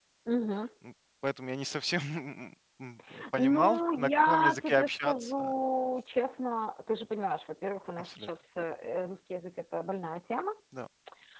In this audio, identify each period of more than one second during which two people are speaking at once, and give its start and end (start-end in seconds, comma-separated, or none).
3.3-5.5